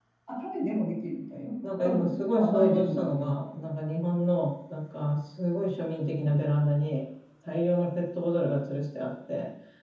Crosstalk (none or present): present